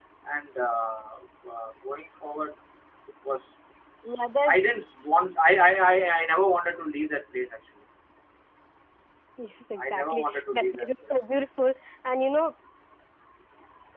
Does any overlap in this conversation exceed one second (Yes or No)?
Yes